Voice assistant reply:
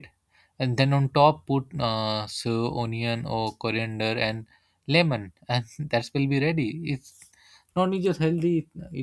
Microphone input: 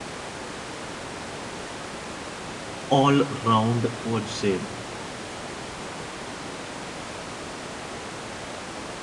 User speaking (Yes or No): Yes